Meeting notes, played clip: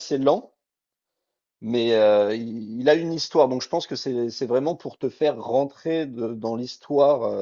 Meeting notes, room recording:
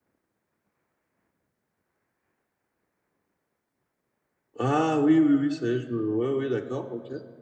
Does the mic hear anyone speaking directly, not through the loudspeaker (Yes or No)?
Yes